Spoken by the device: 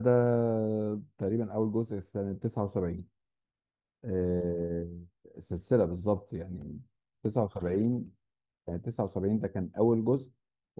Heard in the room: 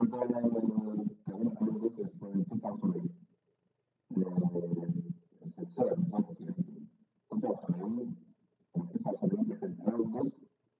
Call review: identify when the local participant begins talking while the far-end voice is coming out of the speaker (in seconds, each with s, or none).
none